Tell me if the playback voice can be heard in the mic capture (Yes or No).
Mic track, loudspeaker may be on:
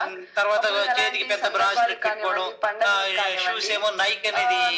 Yes